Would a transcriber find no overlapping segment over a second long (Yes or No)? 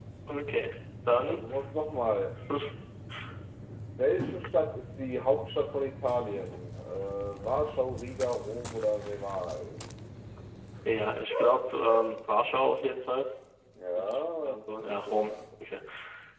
No